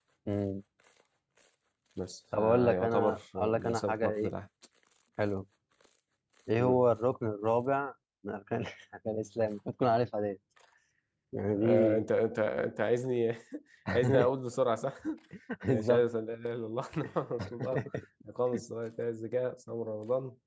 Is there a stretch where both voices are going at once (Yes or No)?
Yes